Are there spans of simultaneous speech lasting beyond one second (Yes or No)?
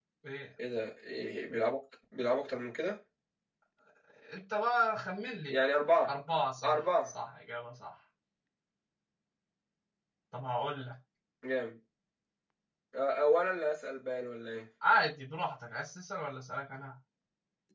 No